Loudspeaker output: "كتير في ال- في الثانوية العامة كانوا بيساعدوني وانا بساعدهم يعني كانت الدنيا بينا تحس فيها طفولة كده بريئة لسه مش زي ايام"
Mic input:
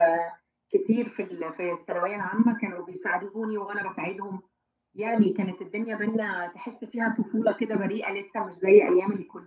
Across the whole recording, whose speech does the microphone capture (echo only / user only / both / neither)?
echo only